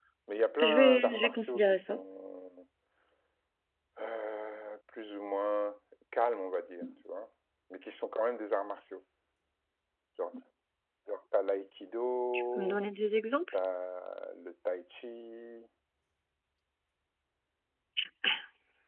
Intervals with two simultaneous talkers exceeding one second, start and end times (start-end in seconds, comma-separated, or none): 0.6-2.0